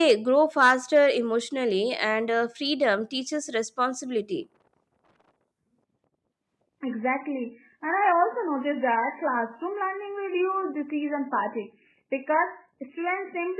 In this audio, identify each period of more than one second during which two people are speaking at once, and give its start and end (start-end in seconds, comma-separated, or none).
none